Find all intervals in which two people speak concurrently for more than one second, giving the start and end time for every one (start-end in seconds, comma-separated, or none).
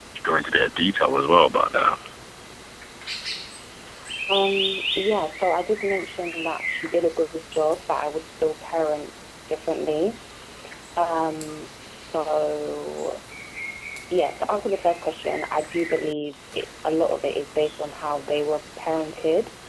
none